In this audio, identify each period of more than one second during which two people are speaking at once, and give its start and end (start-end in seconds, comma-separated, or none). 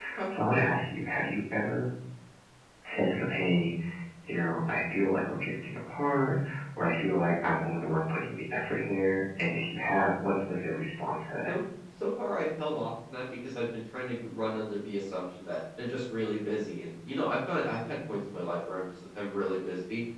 none